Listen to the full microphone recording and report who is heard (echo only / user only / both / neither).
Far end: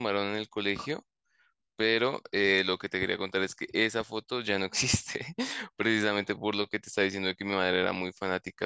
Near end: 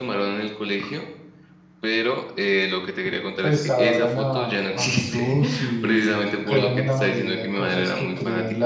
both